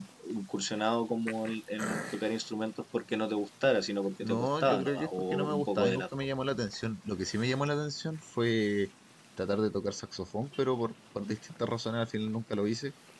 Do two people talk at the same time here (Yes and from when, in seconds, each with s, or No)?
Yes, from 4.2 s